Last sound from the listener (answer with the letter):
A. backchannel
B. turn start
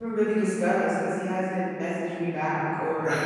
B